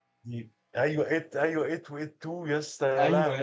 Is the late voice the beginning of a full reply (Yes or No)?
Yes